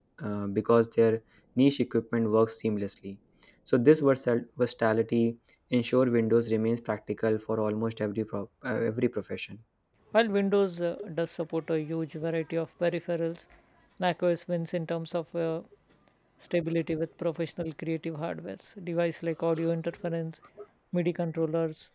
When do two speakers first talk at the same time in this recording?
none

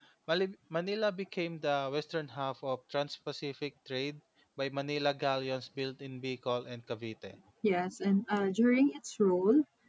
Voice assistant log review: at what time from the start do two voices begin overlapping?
none

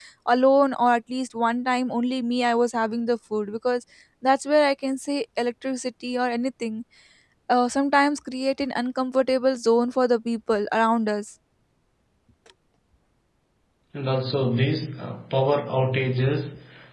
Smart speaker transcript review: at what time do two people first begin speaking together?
none

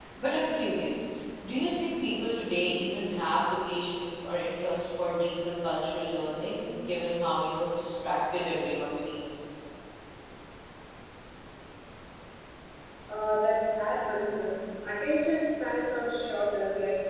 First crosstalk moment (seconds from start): none

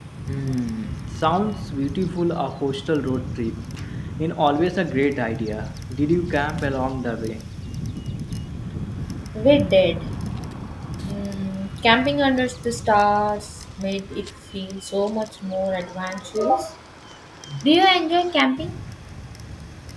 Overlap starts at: none

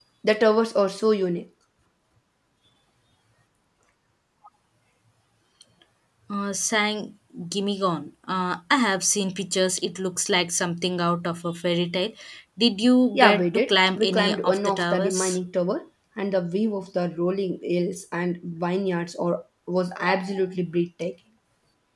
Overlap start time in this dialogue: 13.1 s

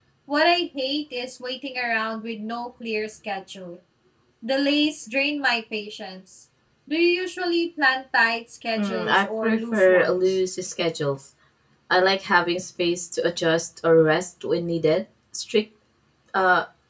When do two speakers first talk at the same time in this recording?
8.8 s

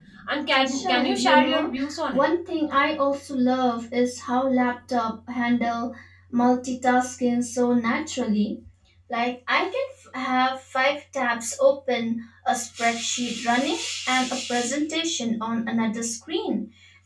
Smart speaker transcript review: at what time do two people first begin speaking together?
0.6 s

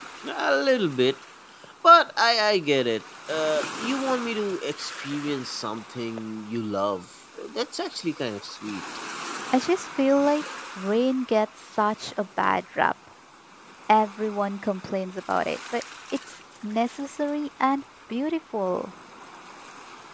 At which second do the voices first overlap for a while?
none

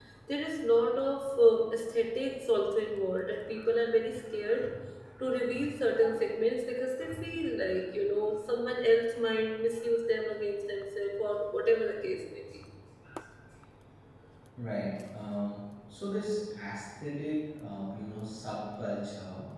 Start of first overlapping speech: none

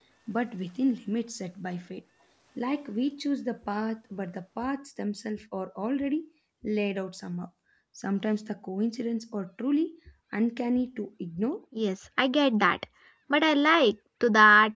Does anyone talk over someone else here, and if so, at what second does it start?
none

